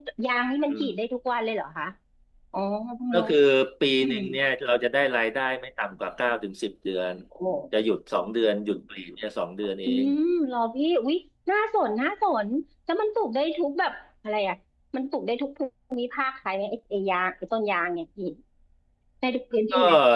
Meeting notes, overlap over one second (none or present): none